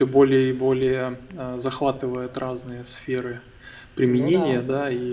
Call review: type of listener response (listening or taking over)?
listening